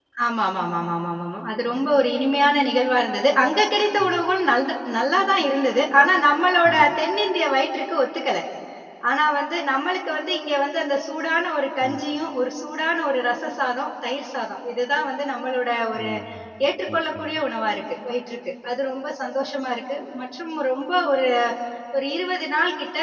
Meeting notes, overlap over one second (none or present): none